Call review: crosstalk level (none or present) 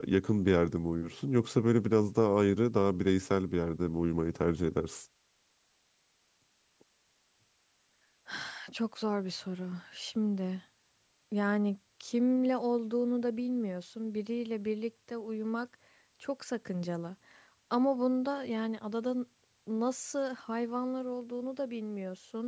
none